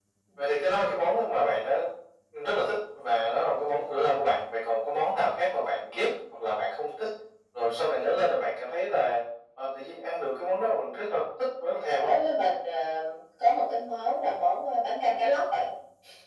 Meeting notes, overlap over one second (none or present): none